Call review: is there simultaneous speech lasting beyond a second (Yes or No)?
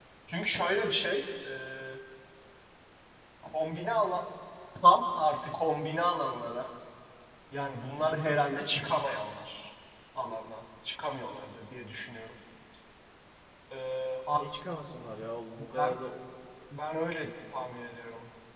No